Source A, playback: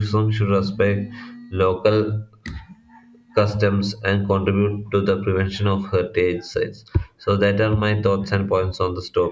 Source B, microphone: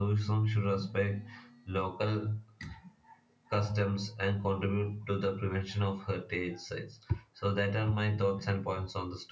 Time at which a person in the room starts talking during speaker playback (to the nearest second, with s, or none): none